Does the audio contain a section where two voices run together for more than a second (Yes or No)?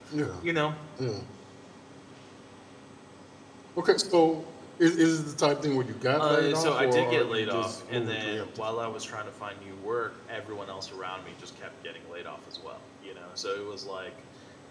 Yes